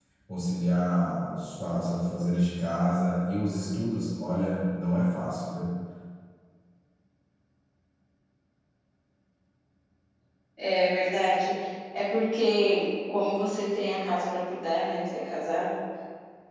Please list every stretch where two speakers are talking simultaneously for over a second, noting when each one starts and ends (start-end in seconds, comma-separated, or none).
none